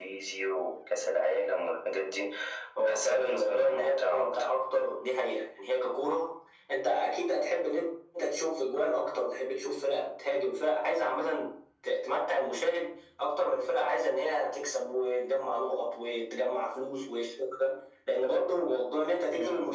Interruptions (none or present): present